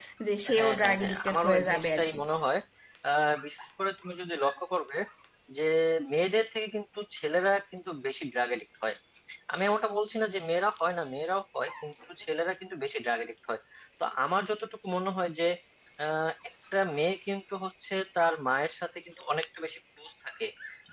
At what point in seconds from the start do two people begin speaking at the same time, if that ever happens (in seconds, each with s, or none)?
0.6 s